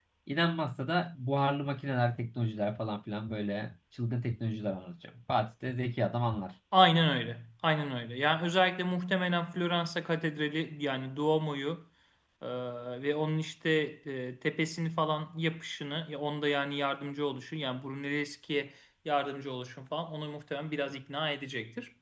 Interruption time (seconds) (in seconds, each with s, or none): none